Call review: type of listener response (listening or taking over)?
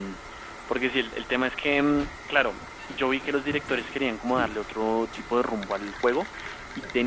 listening